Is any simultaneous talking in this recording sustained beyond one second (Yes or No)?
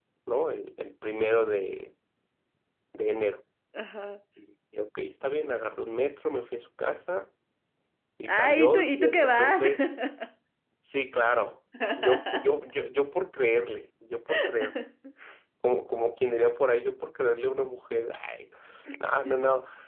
Yes